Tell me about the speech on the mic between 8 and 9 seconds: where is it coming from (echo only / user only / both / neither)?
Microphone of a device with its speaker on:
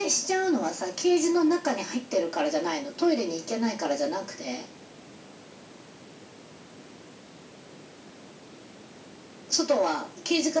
neither